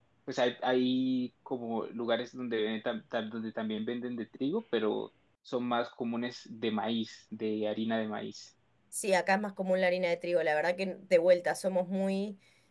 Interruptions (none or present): none